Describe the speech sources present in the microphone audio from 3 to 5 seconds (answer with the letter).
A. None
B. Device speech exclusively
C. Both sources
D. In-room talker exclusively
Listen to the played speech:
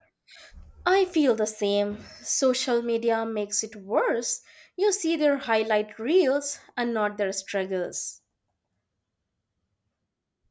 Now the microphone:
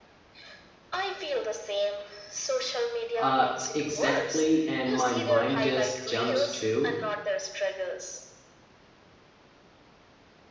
C